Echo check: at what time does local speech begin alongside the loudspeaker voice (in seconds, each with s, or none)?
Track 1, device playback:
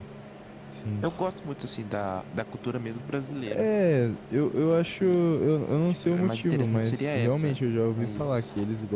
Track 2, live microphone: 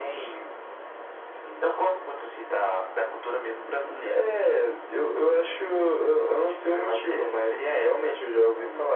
none